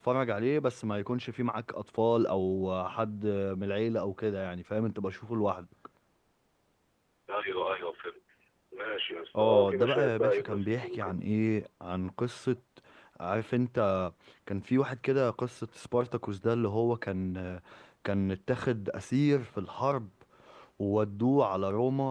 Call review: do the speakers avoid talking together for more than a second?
No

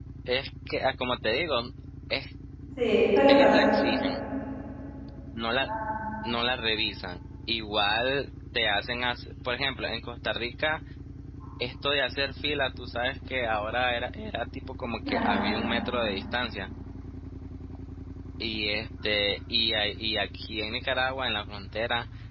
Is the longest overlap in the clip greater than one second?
No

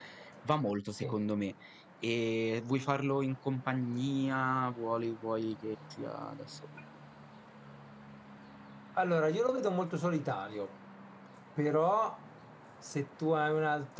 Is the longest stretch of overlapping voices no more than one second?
Yes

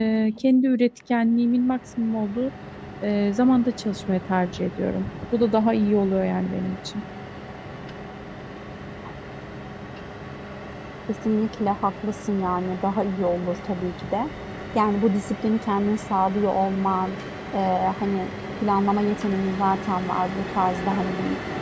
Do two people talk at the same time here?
No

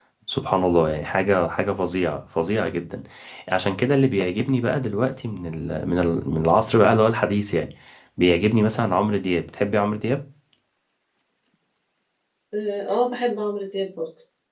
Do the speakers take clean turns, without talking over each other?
Yes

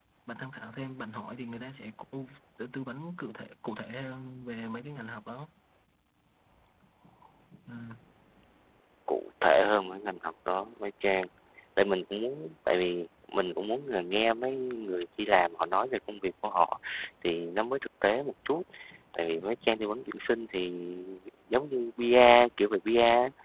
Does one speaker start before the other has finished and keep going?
No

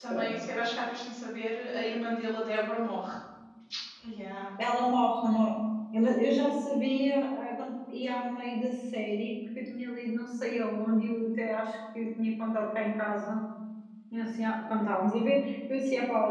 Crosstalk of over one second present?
No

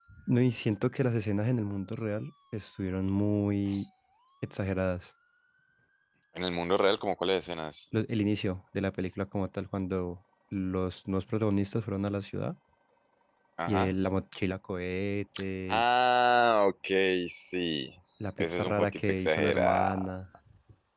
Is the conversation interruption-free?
No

